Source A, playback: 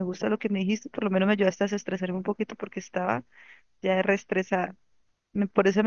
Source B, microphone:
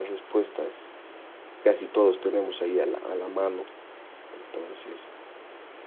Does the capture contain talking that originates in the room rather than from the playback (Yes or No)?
Yes